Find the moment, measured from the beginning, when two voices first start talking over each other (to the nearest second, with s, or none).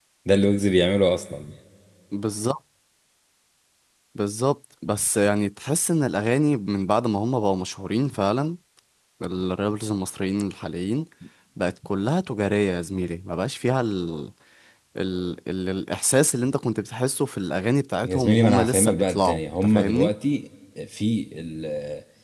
18 s